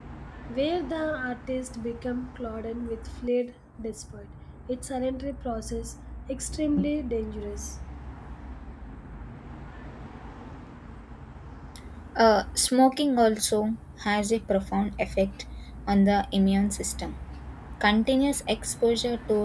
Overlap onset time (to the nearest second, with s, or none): none